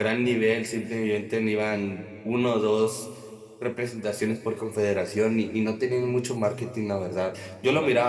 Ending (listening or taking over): listening